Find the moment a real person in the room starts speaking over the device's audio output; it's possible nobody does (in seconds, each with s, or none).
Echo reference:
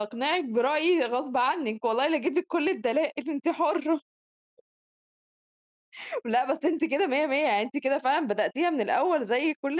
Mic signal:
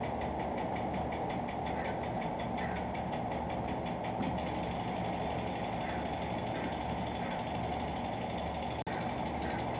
none